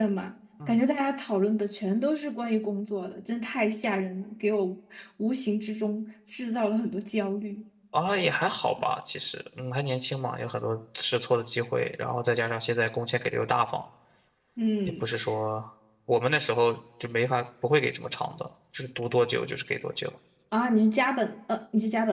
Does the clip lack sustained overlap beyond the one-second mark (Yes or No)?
Yes